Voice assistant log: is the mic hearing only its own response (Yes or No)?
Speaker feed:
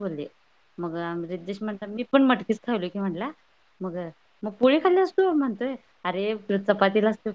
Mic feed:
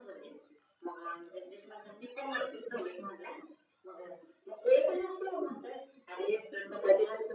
Yes